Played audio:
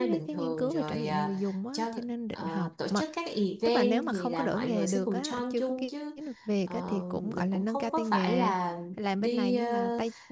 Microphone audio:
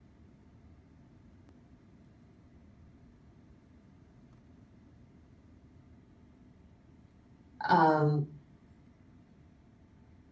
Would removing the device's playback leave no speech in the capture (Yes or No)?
No